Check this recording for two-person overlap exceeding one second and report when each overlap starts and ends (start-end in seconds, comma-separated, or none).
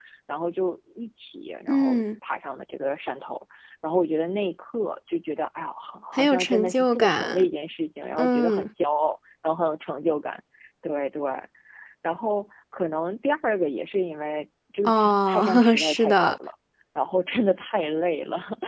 6.1-7.5, 14.8-16.4